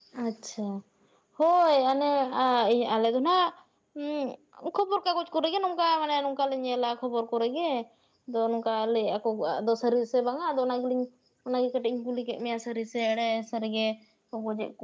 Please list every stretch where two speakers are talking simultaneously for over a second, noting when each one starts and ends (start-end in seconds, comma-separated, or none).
none